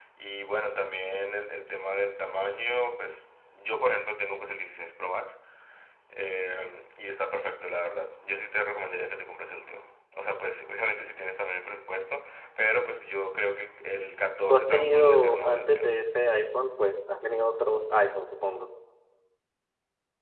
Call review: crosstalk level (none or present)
present